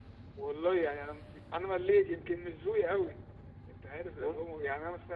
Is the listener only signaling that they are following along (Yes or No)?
Yes